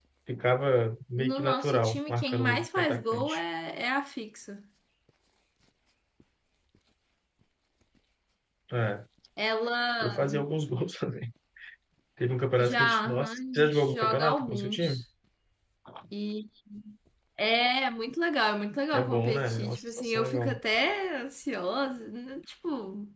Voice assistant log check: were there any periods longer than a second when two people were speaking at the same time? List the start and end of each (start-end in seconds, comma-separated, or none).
1.2-3.4, 12.6-15.0, 18.9-20.6